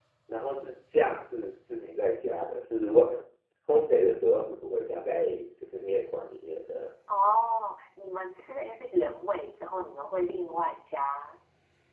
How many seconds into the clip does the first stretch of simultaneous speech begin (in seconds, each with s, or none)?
none